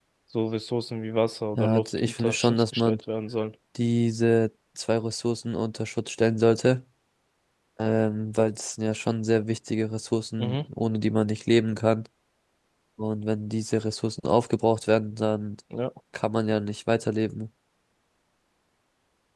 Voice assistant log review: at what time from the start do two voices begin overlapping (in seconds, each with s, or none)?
1.6 s